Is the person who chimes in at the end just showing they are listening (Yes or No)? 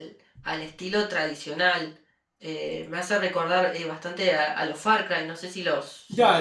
No